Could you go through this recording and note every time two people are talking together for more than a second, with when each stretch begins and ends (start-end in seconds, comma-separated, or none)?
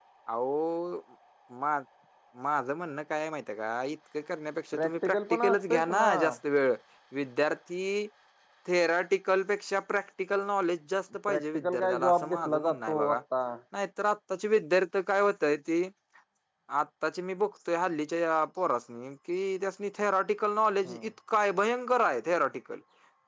4.7-6.1, 11.3-13.2